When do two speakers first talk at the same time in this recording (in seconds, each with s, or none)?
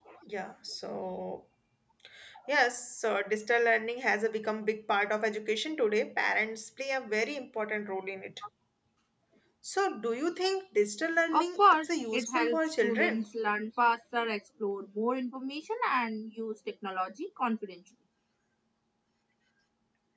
11.3 s